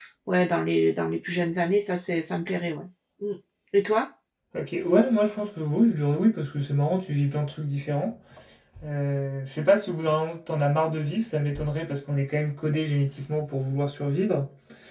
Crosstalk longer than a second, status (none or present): none